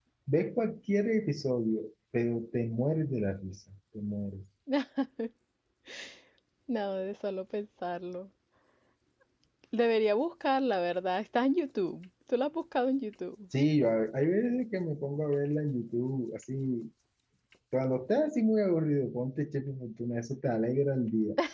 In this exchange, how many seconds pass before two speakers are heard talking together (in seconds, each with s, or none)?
none